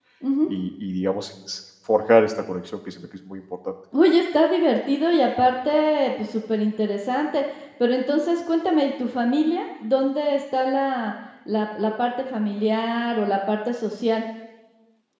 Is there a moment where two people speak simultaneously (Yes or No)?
No